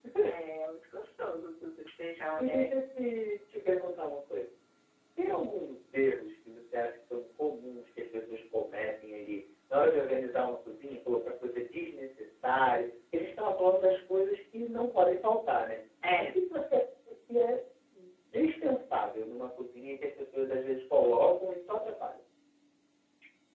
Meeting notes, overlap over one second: none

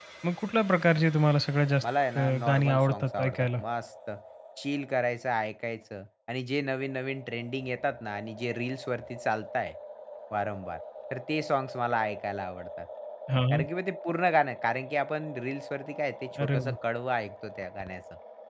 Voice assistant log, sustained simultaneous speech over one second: present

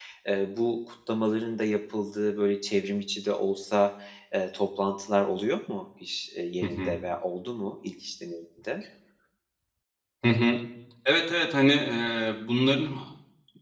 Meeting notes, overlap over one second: none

